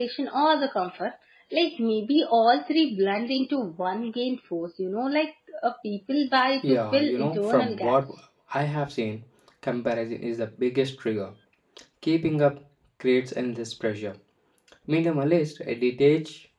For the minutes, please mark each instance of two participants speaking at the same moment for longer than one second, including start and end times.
6.6-8.0

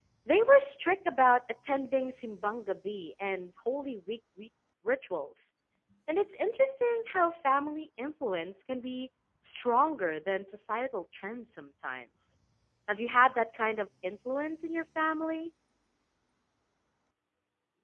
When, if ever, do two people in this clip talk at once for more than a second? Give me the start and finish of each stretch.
none

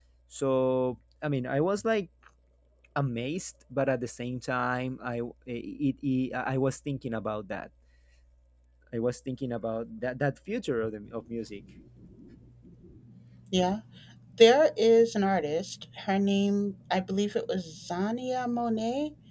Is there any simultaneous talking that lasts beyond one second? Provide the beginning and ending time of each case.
none

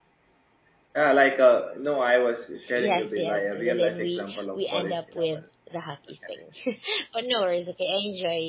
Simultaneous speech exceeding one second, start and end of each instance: 2.8-5.4

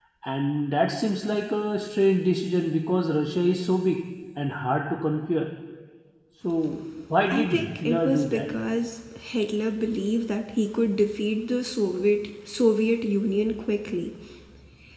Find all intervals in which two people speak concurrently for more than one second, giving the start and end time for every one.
7.3-8.5

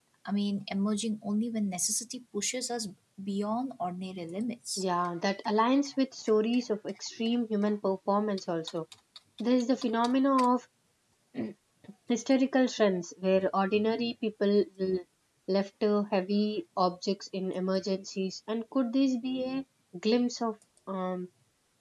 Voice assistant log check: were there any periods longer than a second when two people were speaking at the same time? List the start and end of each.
none

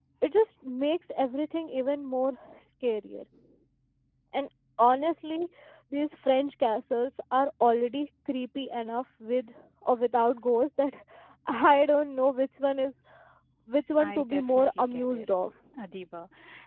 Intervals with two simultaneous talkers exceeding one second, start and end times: 14.0-15.3

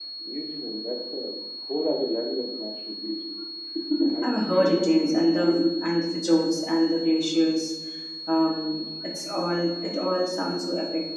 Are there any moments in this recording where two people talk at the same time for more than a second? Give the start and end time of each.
4.2-5.7

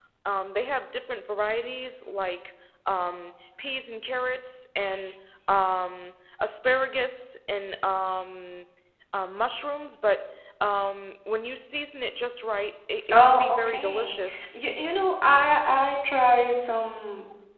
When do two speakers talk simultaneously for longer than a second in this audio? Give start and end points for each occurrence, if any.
13.1-14.6

